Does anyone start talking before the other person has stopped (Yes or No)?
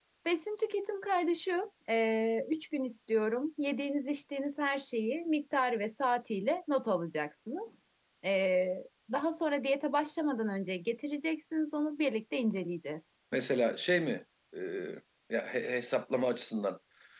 No